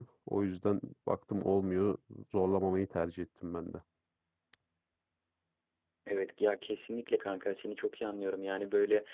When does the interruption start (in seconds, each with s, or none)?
none